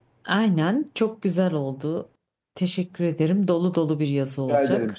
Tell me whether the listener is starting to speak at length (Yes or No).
Yes